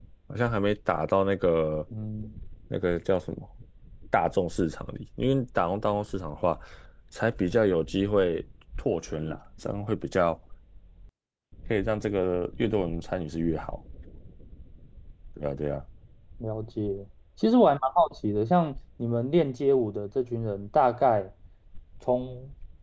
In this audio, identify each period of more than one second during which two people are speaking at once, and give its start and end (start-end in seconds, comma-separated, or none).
none